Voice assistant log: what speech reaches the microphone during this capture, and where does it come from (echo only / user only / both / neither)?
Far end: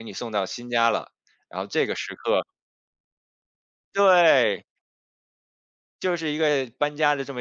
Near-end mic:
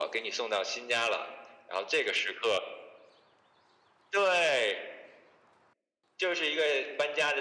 echo only